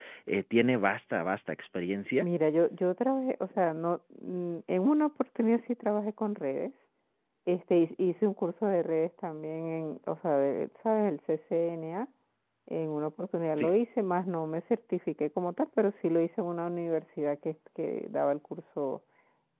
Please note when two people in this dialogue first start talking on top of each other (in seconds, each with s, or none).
none